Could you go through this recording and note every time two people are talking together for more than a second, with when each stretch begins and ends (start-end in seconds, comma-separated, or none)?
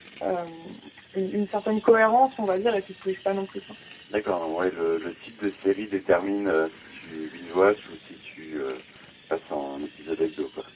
none